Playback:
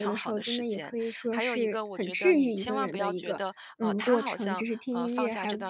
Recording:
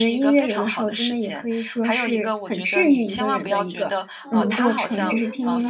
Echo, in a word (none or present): present